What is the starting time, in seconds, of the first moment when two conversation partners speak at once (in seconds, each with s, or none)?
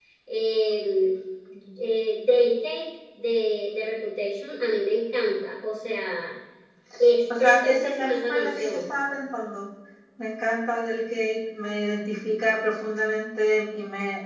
7.4 s